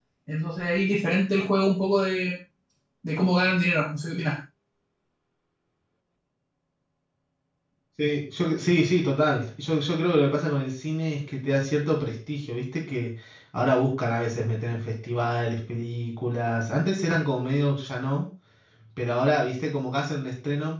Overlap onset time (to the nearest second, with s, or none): none